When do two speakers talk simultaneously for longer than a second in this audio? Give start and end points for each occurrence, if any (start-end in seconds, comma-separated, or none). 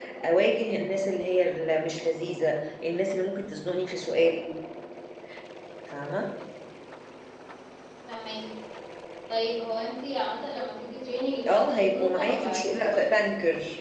11.5-13.0